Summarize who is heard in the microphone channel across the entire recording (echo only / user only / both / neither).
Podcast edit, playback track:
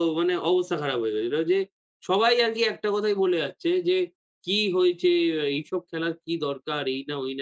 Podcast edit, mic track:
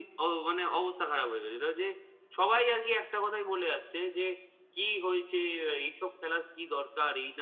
echo only